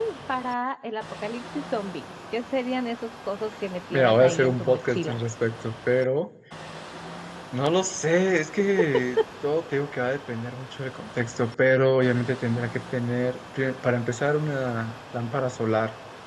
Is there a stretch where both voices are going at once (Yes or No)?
Yes